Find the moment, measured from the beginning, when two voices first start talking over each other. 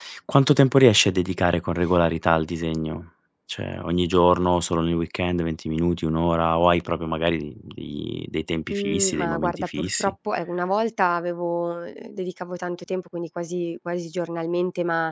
8.7 s

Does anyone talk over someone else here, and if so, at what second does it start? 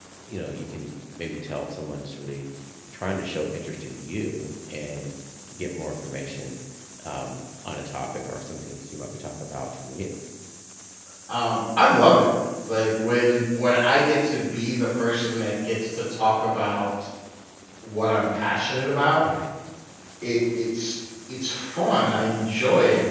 none

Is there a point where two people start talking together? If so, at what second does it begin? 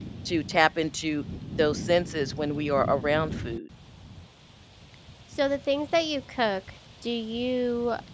none

